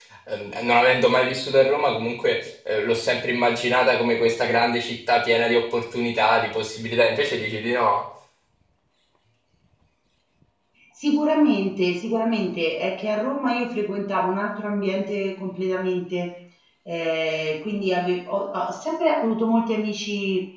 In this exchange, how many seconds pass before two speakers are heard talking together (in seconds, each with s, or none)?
none